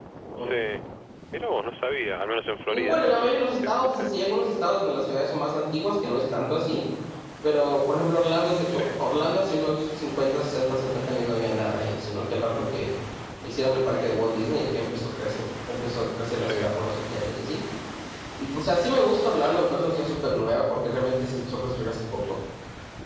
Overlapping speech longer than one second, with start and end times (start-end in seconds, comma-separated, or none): 2.7-4.1